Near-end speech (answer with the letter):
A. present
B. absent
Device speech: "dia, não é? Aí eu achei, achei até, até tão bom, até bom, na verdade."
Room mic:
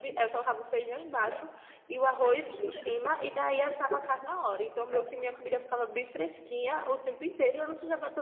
A